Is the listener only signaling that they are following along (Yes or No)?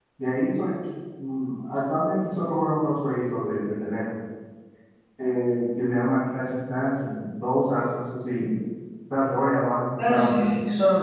No